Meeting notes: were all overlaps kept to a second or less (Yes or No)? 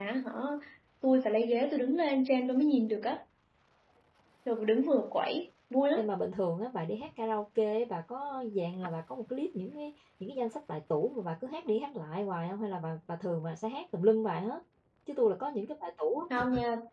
Yes